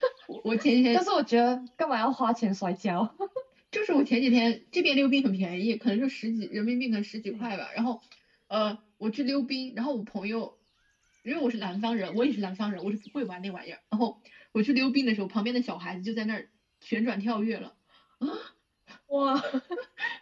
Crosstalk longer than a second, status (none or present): none